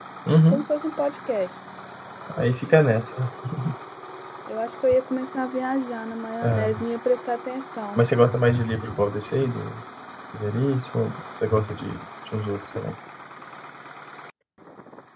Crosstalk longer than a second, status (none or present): none